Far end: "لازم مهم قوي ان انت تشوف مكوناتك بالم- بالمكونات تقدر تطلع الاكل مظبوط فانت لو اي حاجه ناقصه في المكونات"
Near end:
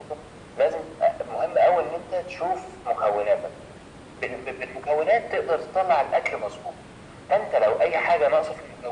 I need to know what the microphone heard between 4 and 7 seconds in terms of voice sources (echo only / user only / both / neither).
echo only